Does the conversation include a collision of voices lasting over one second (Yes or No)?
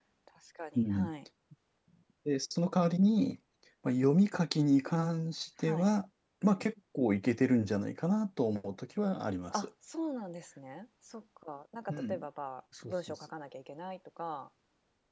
No